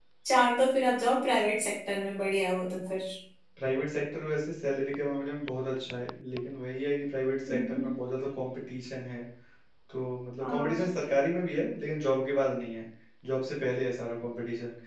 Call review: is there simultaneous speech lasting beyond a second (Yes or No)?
No